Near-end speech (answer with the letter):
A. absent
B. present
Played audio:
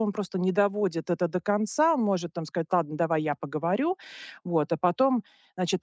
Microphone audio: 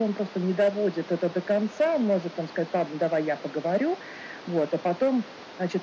A